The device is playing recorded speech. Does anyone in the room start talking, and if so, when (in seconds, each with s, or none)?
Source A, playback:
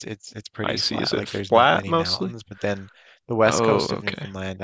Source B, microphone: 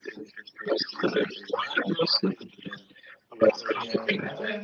3.7 s